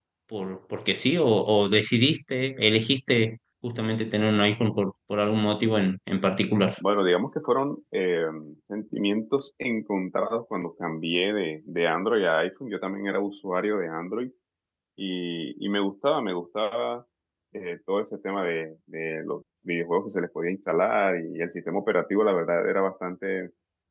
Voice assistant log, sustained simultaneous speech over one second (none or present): none